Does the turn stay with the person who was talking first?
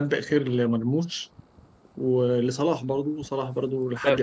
No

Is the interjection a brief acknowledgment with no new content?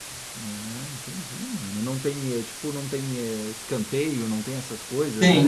No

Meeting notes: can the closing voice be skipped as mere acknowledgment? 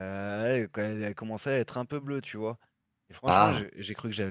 Yes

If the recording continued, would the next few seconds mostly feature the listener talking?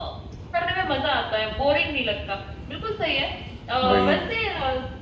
No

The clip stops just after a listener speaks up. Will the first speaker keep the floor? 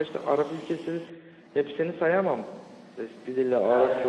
Yes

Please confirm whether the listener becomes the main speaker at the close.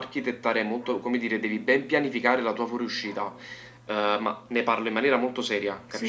Yes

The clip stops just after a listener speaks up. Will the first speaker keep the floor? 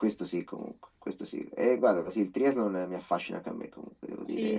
No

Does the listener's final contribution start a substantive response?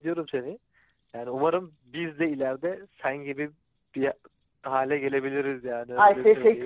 Yes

